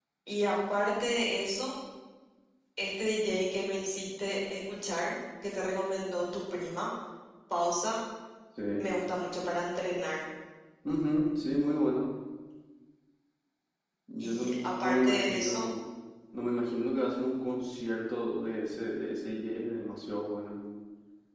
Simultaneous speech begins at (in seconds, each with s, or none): 14.2 s